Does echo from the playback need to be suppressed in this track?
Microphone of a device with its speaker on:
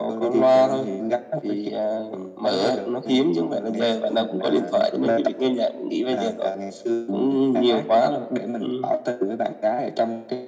Yes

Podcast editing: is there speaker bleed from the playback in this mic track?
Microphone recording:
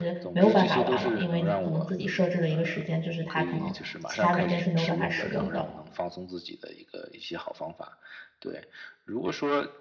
Yes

